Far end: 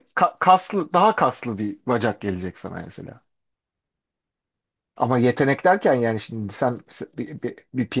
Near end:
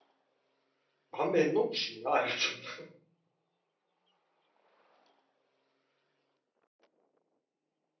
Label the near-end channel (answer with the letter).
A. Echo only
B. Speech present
B